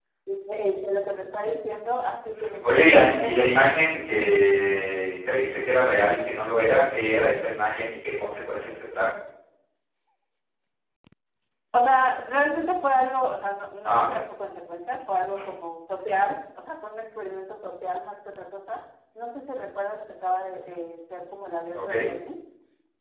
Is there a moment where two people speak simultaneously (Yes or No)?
Yes